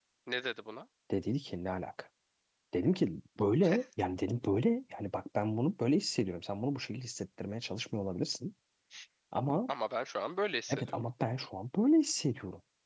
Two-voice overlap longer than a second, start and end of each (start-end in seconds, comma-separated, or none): none